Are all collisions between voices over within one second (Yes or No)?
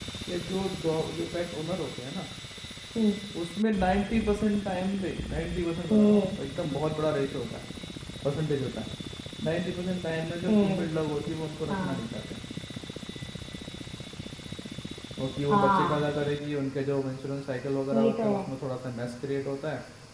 Yes